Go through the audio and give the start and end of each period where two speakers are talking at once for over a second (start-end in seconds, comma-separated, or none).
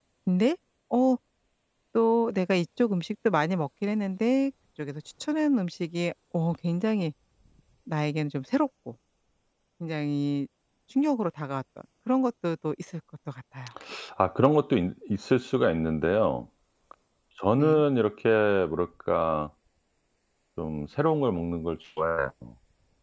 none